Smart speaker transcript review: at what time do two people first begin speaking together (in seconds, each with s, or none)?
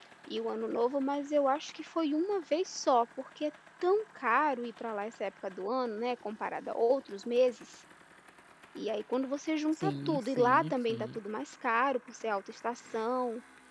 9.8 s